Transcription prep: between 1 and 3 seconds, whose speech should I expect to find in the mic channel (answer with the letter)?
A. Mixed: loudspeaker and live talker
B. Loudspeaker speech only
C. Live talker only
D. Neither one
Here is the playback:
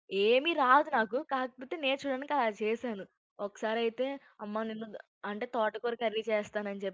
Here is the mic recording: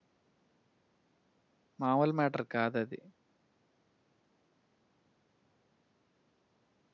C